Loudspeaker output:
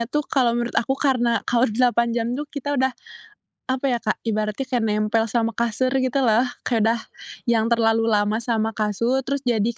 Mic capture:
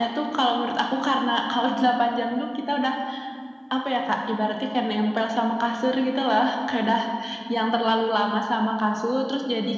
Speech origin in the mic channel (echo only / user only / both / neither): echo only